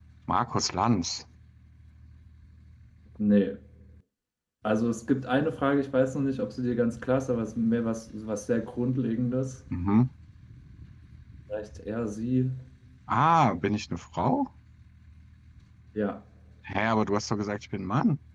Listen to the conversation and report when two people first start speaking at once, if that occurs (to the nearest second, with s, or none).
none